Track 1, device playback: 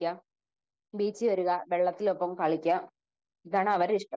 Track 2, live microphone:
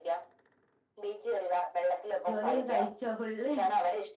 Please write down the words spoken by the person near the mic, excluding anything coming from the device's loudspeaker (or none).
ജോലിയൊക്കെ കഴ ച്ചോ ഫുള്ള്